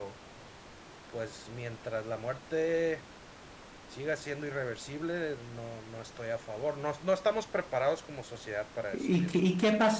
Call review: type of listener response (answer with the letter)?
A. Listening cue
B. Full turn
B